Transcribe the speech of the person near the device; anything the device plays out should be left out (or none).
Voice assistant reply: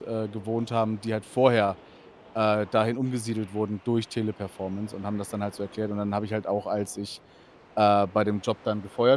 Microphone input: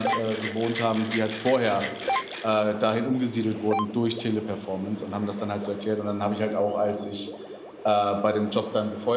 none